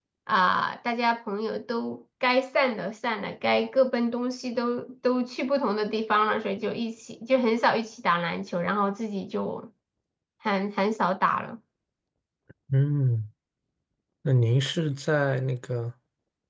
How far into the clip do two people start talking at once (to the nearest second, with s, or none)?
none